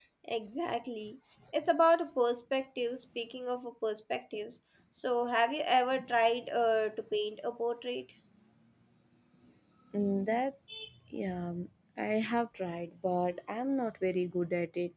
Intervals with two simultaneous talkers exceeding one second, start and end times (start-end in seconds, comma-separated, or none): none